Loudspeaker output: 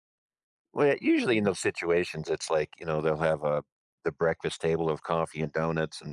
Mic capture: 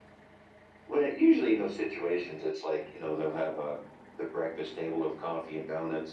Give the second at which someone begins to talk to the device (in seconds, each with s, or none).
none